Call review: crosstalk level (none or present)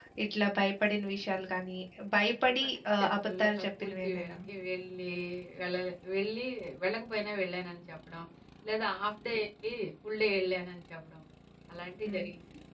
present